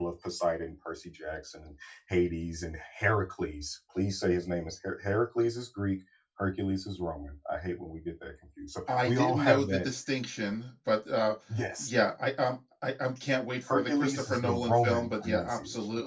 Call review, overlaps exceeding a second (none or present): present